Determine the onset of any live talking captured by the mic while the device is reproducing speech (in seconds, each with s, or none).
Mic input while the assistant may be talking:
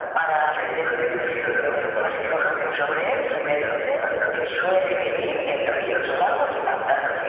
none